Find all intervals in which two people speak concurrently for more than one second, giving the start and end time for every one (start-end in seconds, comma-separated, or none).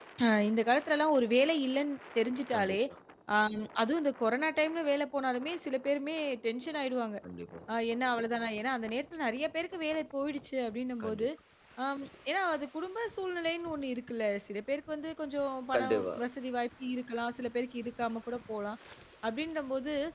none